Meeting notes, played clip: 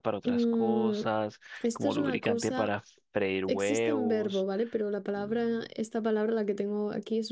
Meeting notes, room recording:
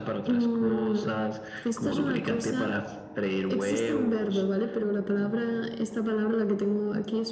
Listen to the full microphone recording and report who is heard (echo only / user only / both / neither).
echo only